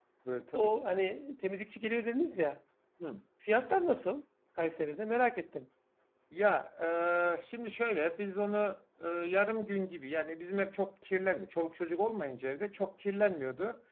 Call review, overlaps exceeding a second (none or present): none